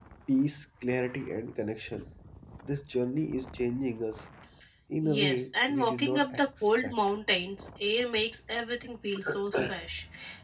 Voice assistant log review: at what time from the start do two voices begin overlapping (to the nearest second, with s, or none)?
5 s